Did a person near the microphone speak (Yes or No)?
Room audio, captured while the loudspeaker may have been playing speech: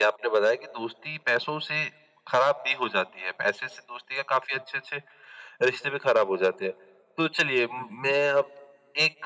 Yes